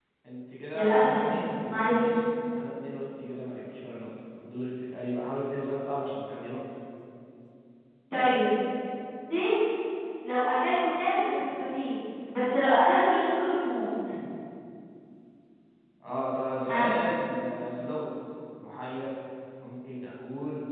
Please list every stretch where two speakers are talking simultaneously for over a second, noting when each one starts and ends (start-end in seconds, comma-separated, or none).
0.7-2.1